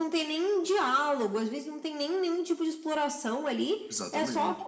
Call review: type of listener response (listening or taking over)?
listening